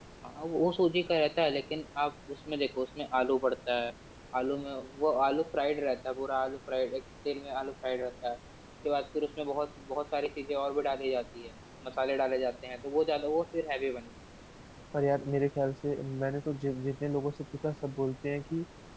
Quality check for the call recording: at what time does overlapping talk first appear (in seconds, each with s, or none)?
none